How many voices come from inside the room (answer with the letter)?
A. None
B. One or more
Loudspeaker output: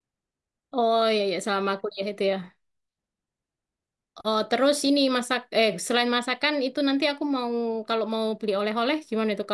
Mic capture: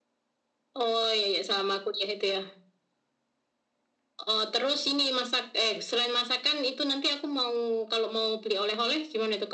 A